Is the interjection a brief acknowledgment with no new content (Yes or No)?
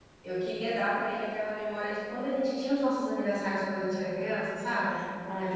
Yes